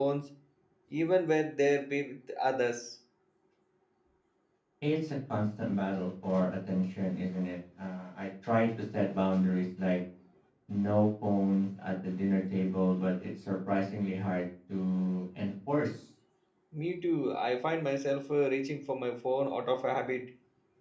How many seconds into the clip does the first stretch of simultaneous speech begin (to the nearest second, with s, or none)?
none